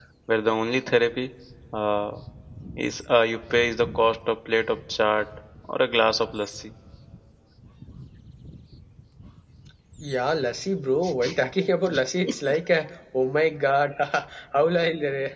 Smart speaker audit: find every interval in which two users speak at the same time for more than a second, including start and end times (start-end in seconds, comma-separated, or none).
none